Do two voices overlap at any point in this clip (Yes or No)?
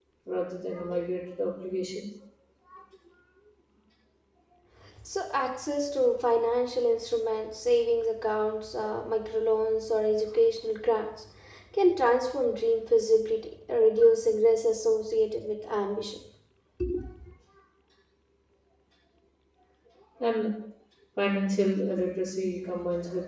No